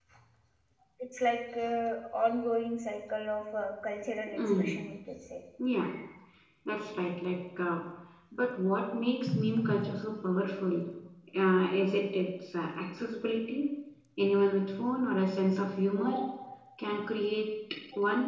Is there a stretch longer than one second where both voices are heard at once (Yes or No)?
No